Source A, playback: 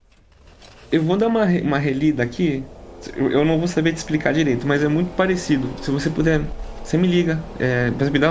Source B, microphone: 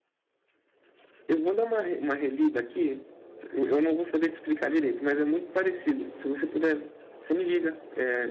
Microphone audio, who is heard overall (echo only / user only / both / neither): echo only